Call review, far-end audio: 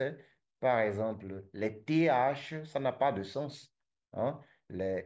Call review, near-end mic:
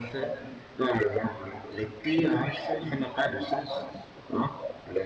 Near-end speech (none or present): none